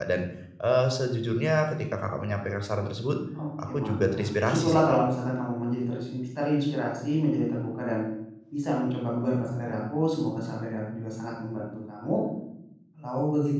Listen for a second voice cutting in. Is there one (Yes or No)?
Yes